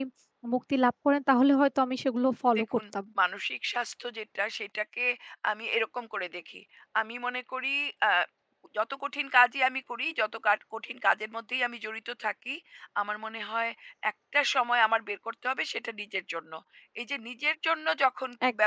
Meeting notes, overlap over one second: none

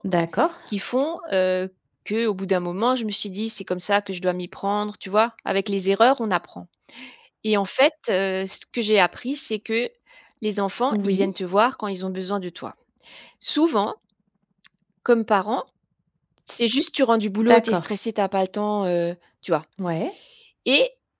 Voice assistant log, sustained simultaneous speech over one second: none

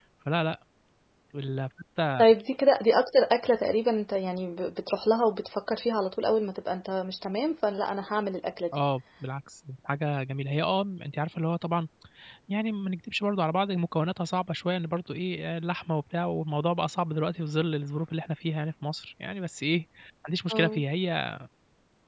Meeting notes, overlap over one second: none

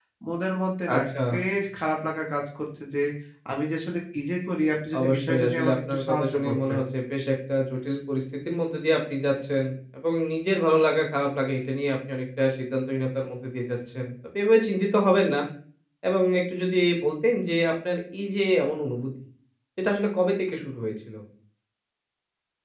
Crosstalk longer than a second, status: present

